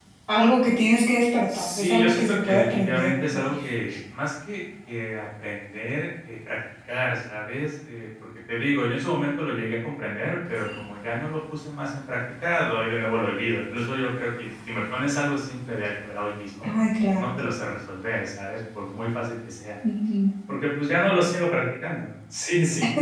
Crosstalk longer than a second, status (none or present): present